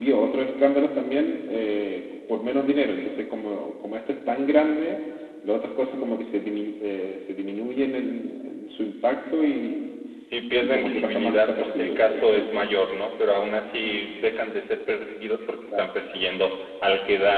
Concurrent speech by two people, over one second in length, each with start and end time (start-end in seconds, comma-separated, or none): 10.6-12.5